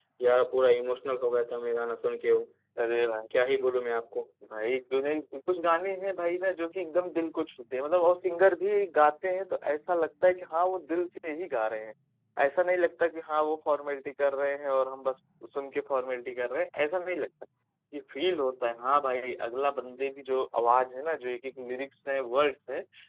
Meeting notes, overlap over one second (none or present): none